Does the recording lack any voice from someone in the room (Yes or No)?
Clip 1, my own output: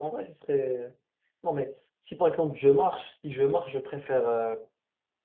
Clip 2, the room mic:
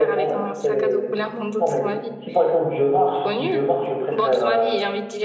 No